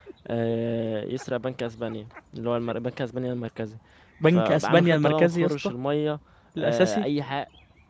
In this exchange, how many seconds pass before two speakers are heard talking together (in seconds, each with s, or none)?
4.3 s